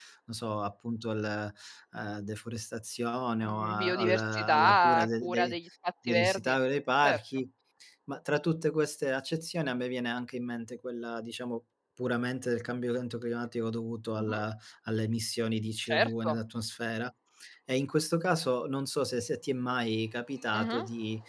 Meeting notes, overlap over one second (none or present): present